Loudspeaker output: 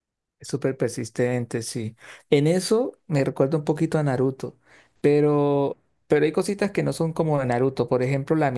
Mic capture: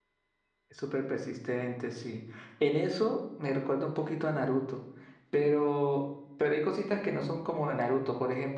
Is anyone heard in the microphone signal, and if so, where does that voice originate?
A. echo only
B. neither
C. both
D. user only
A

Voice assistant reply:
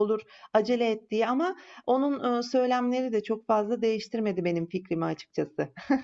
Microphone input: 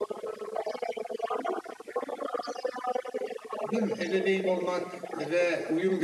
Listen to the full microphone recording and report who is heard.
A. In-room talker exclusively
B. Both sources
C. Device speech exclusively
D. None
B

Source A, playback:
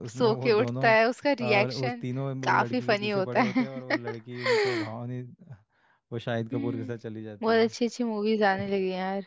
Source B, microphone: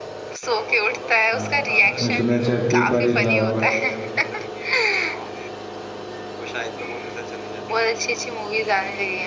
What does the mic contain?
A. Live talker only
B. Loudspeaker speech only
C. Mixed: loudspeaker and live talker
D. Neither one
C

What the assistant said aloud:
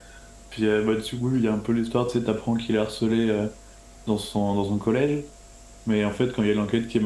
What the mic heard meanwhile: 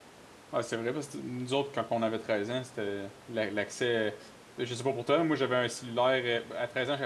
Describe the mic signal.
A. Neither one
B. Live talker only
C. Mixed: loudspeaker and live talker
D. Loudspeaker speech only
B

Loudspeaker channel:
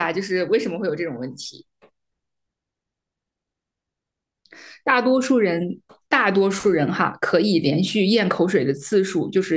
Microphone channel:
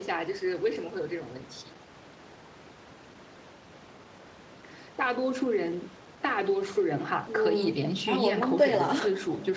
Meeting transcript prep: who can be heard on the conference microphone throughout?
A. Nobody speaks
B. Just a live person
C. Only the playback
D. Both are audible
D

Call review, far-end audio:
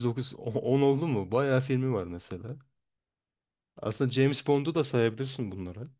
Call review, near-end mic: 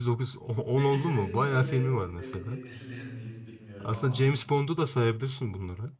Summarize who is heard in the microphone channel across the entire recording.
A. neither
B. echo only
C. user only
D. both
D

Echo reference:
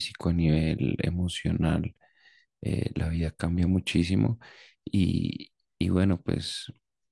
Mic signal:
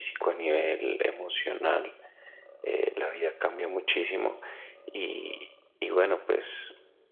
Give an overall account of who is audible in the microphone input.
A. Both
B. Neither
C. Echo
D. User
C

